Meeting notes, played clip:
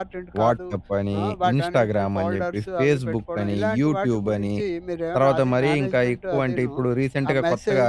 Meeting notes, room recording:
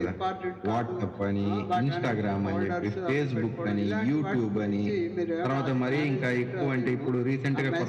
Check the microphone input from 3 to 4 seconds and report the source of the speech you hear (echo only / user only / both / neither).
echo only